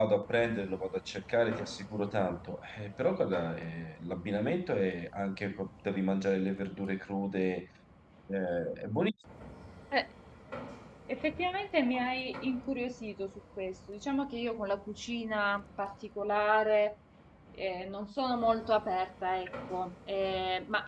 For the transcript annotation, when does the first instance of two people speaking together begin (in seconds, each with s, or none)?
none